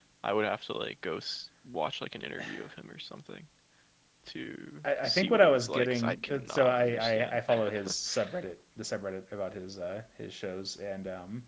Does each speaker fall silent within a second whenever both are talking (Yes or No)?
No